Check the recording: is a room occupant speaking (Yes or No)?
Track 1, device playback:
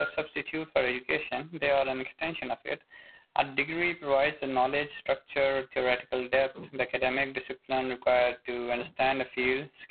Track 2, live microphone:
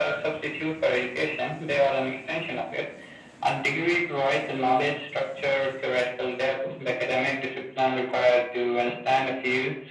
No